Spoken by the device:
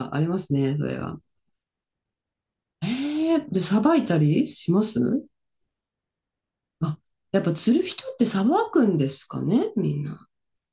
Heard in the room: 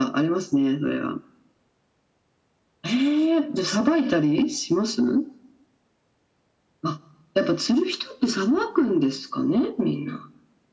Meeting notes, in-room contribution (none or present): none